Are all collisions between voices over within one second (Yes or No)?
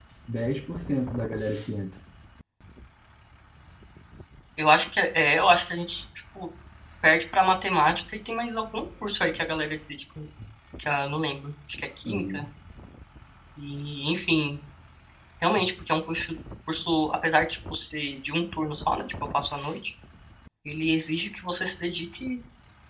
Yes